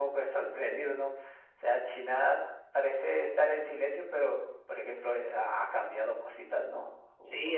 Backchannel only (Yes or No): No